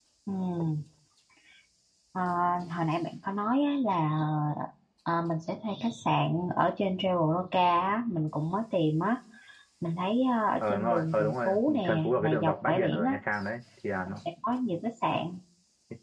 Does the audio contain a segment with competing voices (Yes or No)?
Yes